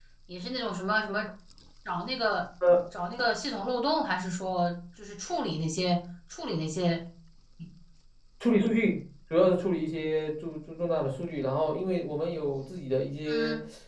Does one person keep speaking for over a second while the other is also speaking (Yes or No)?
No